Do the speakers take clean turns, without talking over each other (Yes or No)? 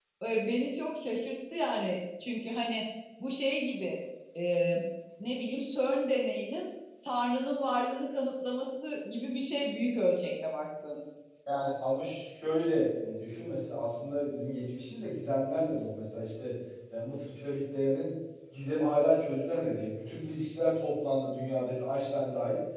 Yes